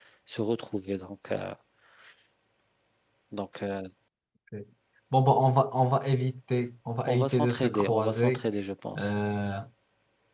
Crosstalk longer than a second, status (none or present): present